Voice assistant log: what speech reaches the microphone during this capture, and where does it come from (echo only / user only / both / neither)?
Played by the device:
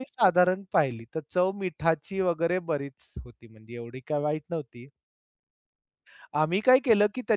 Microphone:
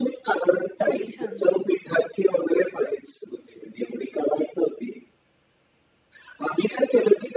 both